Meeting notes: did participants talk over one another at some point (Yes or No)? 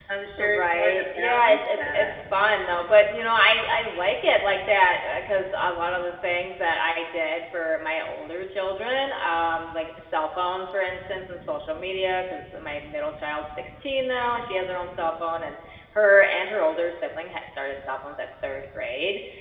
Yes